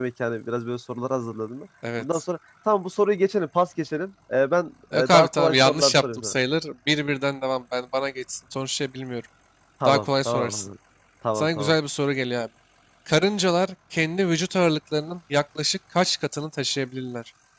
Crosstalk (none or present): present